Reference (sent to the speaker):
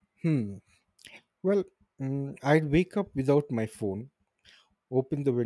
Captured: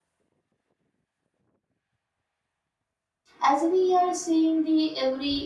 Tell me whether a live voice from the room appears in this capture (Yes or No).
Yes